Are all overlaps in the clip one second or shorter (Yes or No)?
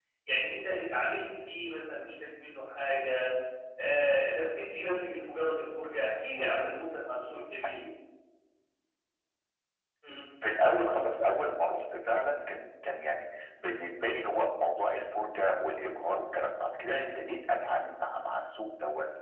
Yes